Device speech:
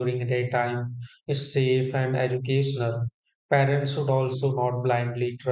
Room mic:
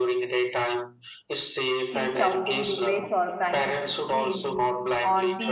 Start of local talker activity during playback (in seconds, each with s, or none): 1.8 s